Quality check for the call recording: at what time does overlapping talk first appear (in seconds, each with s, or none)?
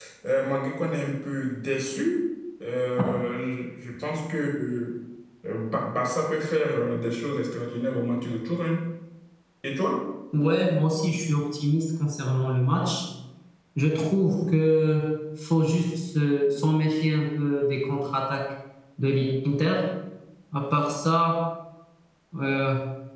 none